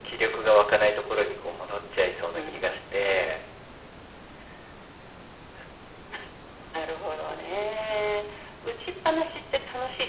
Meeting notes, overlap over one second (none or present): none